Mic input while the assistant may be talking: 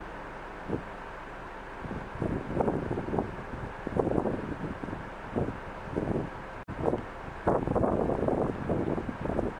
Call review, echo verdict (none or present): none